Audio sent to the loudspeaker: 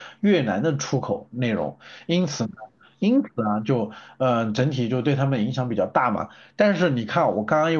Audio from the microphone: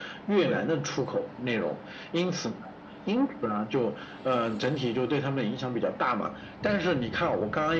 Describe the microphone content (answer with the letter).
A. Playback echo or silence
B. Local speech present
B